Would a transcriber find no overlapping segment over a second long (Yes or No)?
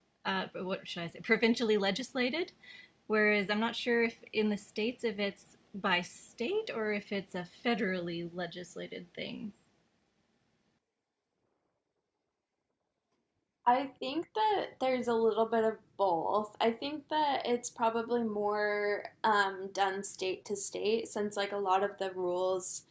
Yes